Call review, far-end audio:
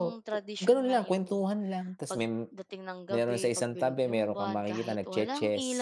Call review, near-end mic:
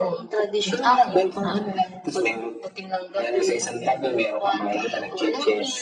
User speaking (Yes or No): Yes